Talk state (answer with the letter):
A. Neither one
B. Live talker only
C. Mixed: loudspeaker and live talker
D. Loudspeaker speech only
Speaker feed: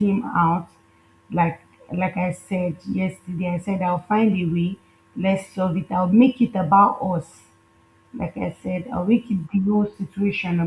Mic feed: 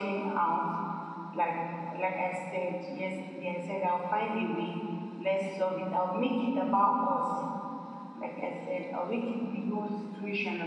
D